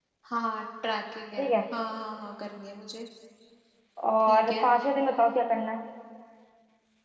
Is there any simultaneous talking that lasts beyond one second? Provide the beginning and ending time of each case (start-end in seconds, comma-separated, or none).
none